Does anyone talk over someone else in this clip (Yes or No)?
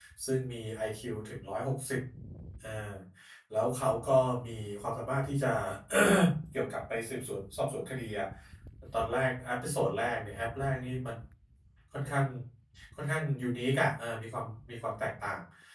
No